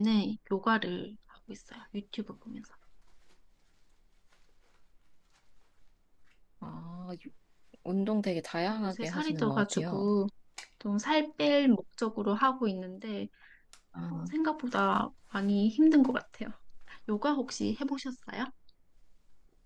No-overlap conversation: No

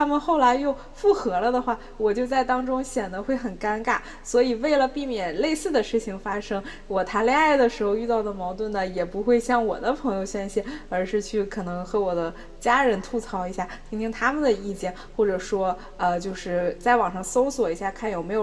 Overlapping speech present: No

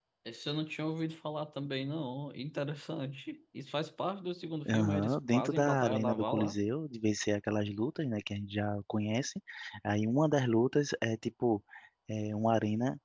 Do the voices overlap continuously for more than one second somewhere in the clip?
Yes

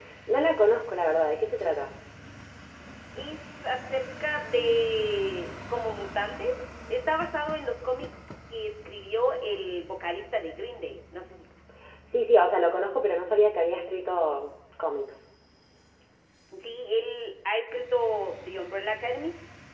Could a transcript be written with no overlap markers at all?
Yes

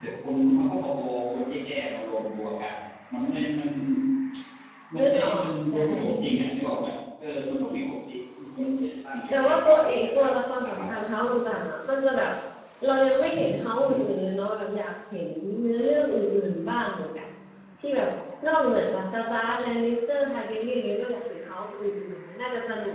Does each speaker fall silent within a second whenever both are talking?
No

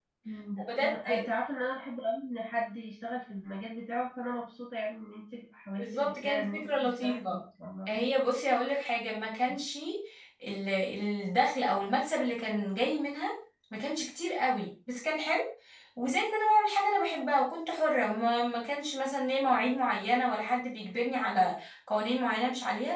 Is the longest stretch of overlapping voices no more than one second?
No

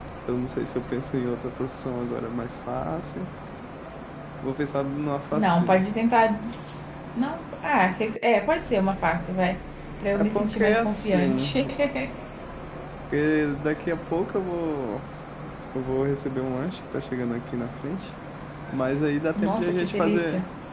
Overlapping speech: Yes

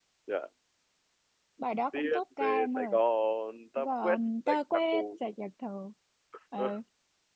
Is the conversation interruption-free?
No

